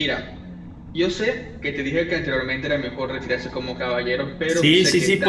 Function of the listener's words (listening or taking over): taking over